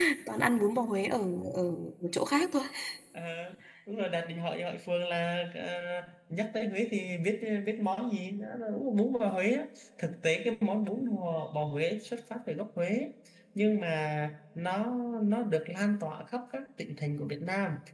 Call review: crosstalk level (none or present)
none